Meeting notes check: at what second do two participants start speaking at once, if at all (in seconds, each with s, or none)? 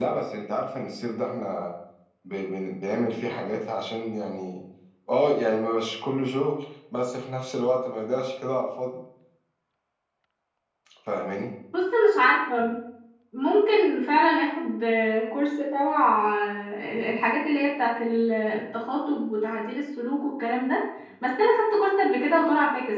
none